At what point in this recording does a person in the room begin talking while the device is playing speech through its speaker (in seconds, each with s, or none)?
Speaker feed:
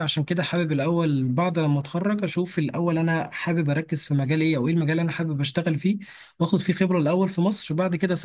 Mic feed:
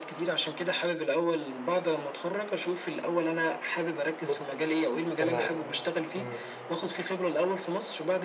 4.2 s